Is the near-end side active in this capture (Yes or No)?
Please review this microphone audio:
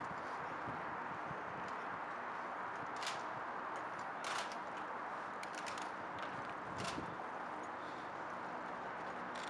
No